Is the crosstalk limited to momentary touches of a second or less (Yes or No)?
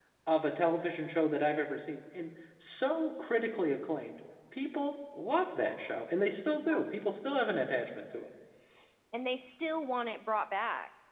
Yes